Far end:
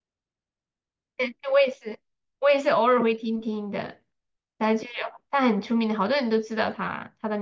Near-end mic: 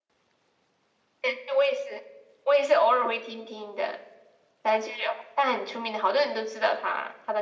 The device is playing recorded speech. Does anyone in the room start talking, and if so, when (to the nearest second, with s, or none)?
none